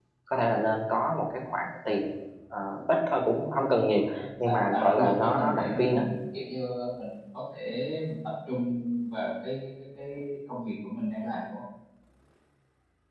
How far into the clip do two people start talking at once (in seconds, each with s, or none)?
4.5 s